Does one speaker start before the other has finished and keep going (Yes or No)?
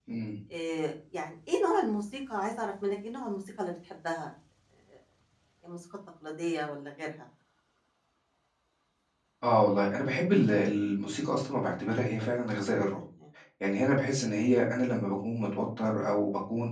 No